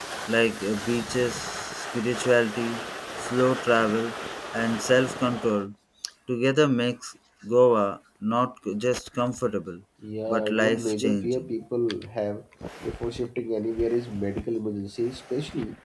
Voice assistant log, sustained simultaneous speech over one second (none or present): present